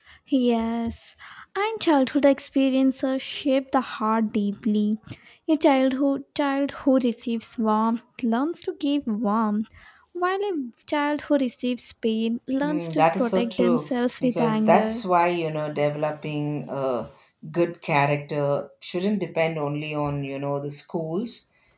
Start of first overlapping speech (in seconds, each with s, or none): 12.6 s